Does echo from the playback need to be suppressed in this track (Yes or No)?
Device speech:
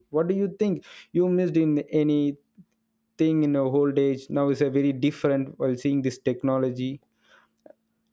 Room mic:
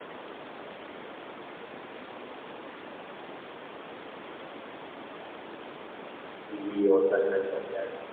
No